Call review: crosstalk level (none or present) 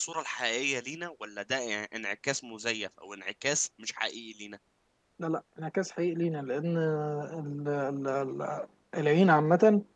none